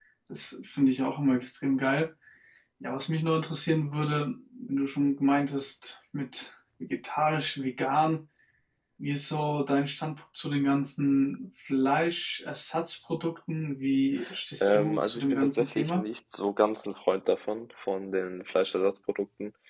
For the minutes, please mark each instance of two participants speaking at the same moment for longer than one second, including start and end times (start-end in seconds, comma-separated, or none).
14.6-16.0